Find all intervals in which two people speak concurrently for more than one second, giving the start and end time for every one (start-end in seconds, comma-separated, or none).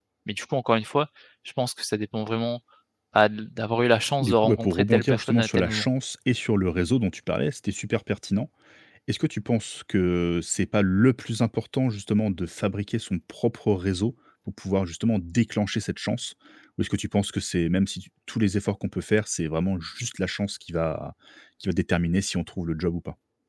4.2-5.9